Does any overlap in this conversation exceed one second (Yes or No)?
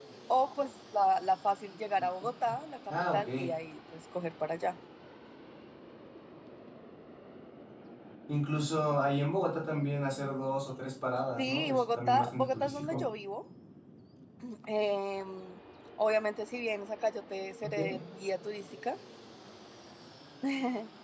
Yes